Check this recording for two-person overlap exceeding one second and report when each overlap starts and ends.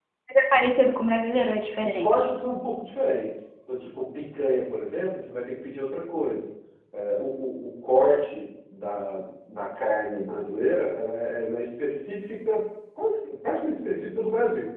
none

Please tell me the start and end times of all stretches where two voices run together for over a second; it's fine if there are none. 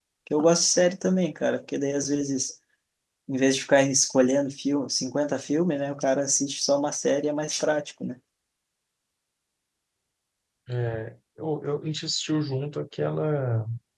none

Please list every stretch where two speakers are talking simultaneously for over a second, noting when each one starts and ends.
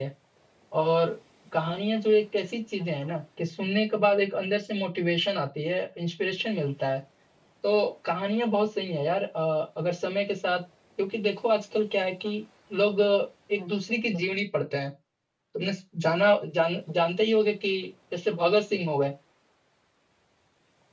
none

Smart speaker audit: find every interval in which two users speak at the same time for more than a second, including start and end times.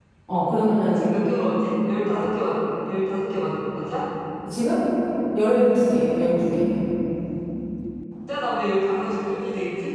none

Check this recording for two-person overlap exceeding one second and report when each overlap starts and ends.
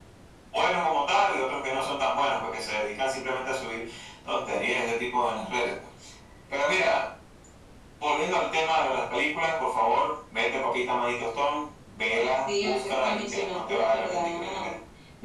12.1-14.7

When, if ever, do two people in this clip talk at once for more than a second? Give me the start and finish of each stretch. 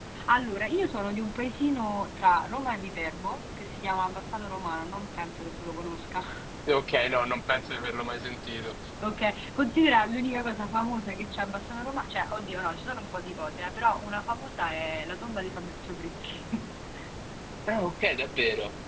none

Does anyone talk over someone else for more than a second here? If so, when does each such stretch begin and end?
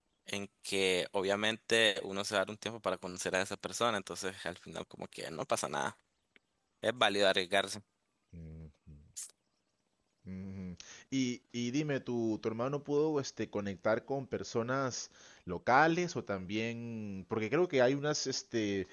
none

